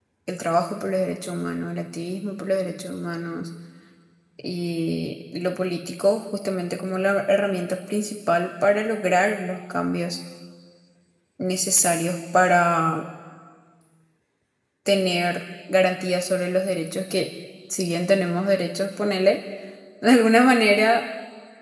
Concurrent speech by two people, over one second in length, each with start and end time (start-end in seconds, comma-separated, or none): none